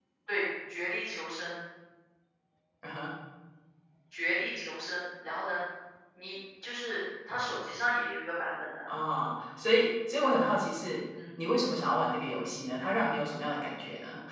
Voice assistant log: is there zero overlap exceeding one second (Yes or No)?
Yes